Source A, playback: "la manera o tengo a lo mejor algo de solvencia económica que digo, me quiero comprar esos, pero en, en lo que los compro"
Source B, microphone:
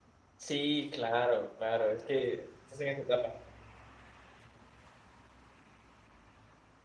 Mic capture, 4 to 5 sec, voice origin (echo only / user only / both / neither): neither